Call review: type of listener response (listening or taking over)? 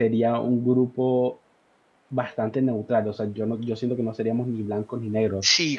taking over